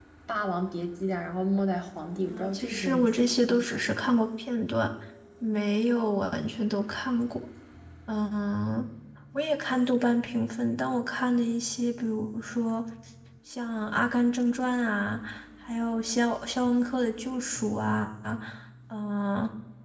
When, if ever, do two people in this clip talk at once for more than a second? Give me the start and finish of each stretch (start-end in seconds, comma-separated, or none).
2.3-3.9